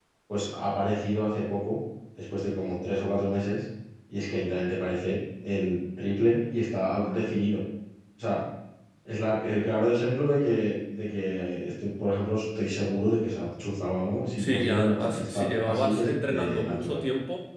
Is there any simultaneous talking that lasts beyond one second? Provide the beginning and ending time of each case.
14.4-17.0

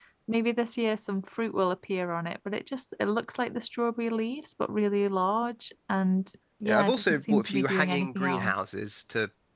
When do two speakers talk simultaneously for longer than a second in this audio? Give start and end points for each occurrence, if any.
6.7-8.5

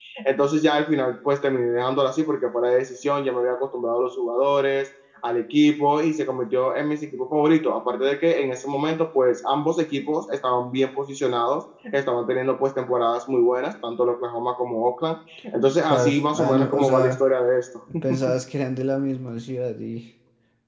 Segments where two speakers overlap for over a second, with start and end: 15.8-17.2

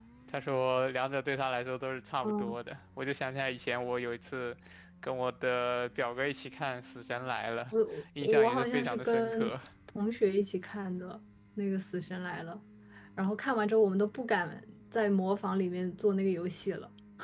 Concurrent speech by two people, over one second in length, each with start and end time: 8.2-9.5

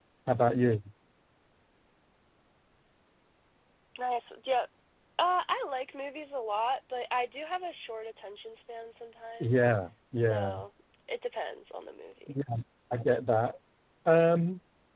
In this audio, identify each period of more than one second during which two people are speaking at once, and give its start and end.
none

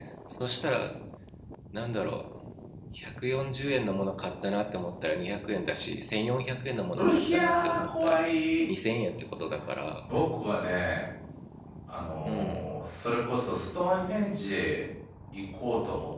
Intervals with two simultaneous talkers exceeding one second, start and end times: 7.0-8.2

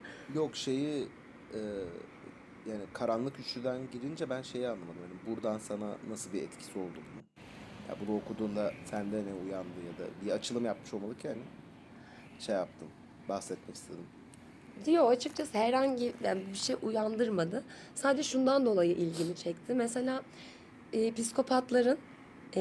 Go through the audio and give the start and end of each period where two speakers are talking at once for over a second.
none

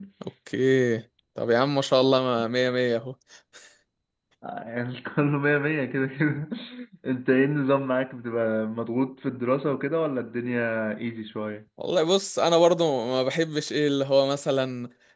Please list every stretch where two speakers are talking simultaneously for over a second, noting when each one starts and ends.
none

